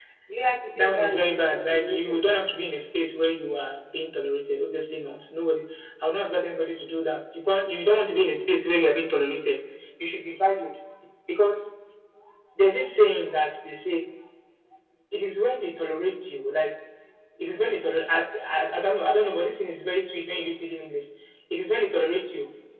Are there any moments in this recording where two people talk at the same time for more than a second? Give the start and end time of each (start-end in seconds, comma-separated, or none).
0.8-2.2